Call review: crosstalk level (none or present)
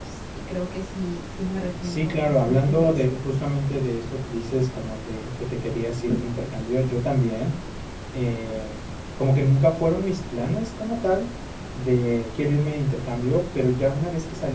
present